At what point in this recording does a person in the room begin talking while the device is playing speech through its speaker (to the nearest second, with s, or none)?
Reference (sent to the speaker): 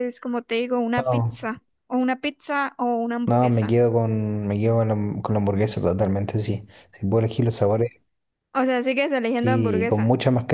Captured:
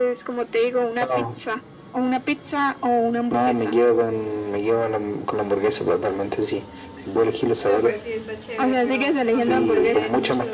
8 s